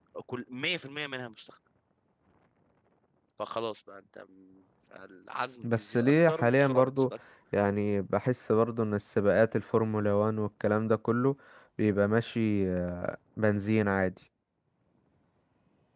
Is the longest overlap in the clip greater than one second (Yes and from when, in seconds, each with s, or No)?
Yes, from 5.6 s